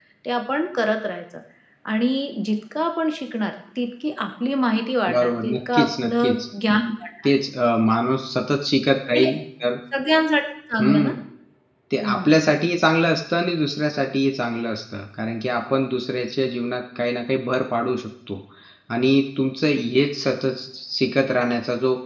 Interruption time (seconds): 5.1 s

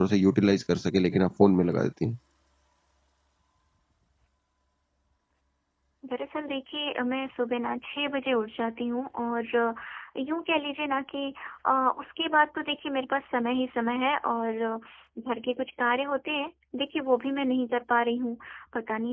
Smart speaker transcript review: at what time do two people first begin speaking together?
none

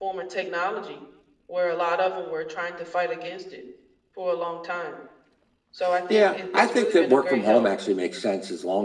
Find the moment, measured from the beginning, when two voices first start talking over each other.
6.1 s

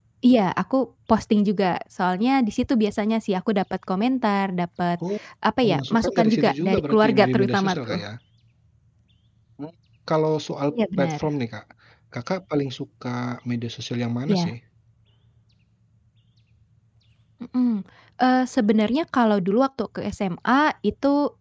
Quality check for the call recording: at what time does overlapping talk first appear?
5.6 s

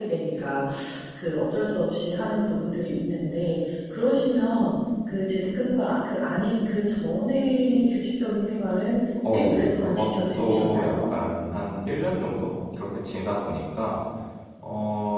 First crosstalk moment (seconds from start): 9.2 s

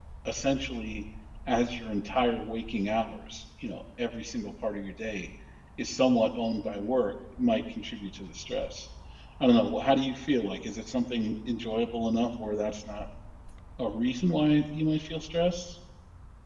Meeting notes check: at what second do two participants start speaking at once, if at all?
none

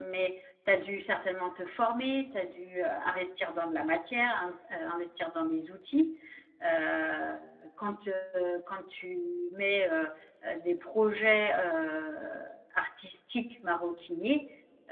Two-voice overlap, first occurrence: none

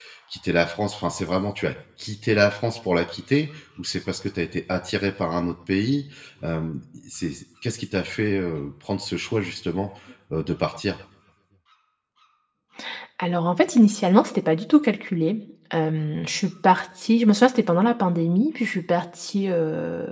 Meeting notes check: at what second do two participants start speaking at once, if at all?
none

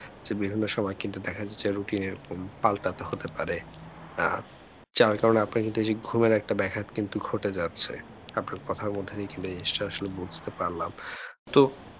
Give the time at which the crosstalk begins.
none

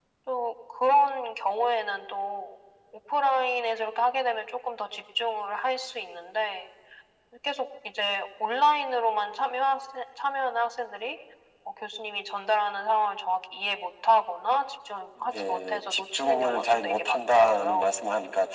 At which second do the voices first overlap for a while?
15.2 s

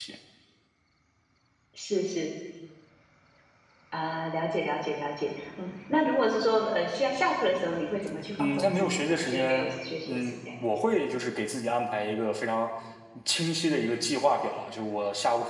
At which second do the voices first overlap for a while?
8.4 s

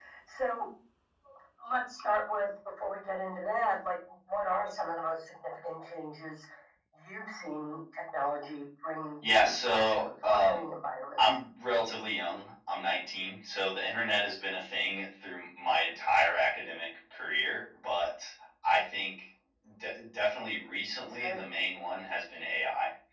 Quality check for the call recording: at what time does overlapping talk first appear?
9.4 s

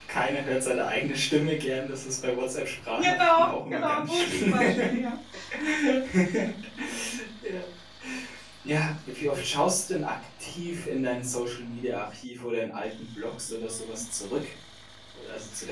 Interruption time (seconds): 2.9 s

